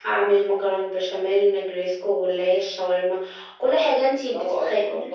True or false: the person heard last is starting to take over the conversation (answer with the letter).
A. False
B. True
B